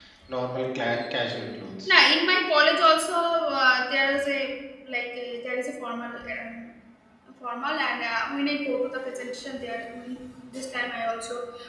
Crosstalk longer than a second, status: none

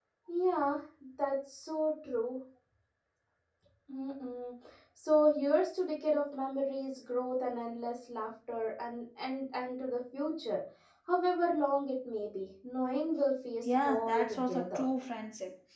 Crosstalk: present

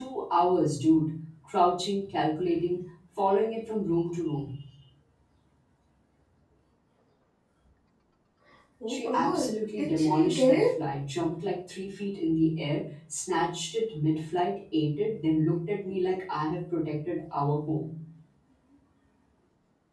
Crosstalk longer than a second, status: present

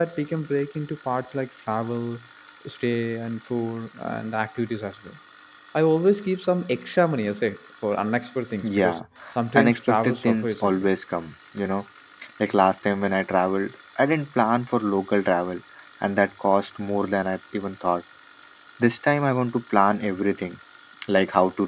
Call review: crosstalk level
present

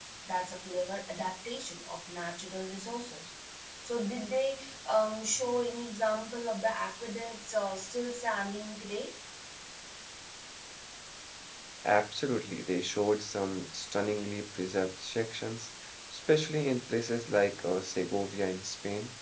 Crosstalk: none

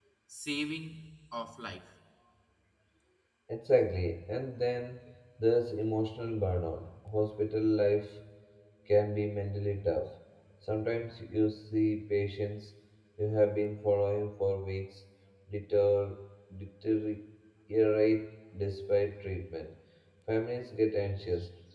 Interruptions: none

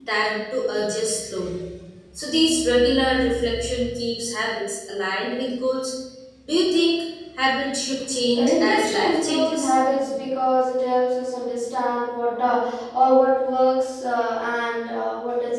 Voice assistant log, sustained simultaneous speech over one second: present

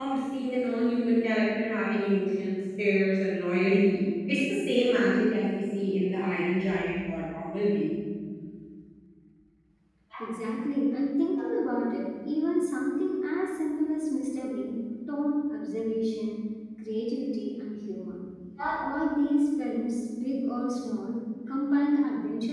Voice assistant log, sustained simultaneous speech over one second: none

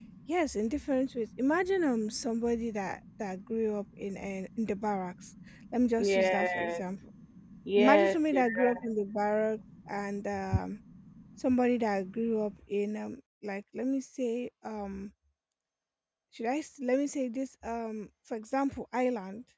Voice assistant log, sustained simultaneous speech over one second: present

